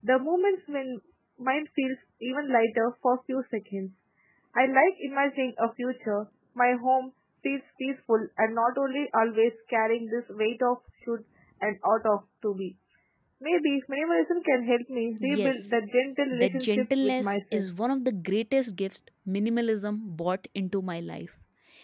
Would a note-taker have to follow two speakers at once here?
Yes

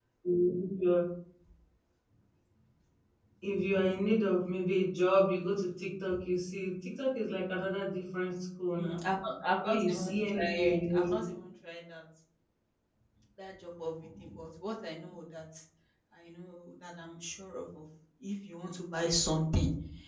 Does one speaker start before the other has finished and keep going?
Yes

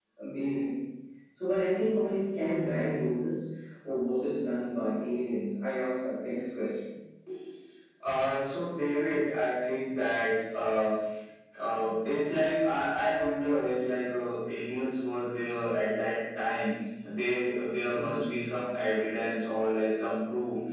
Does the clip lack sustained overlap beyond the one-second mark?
Yes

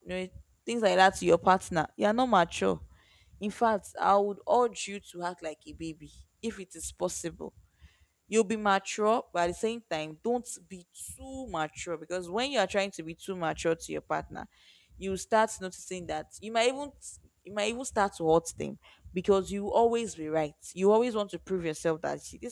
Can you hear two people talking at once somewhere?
No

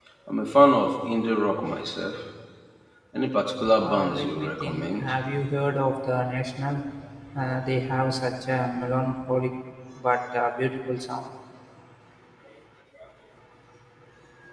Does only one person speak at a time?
No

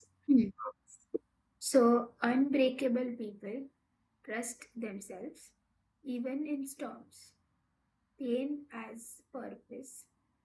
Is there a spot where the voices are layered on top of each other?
No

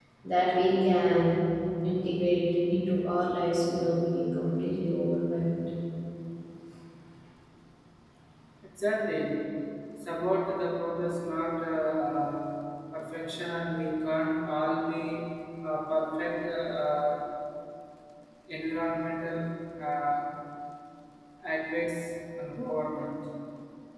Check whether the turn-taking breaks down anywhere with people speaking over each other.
No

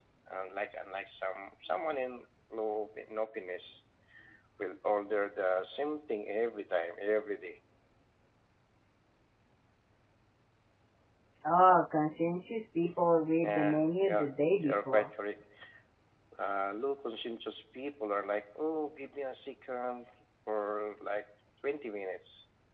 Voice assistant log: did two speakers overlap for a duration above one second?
Yes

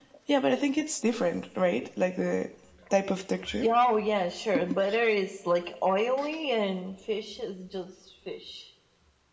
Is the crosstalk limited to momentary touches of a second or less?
Yes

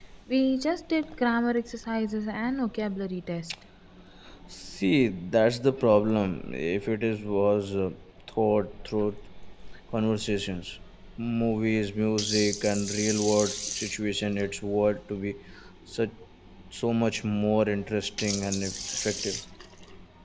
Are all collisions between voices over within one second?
Yes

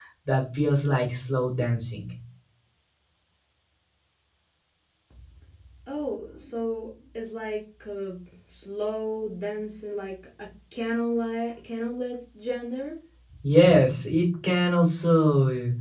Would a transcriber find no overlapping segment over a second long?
Yes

